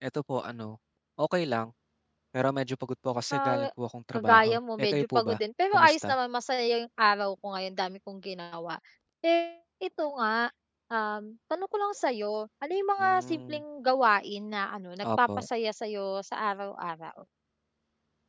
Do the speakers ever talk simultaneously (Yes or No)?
Yes